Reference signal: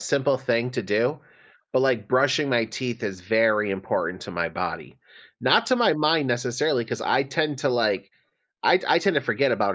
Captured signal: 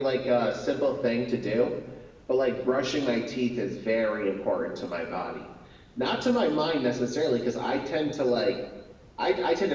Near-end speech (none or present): none